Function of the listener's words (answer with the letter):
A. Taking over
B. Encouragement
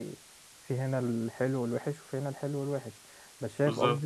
B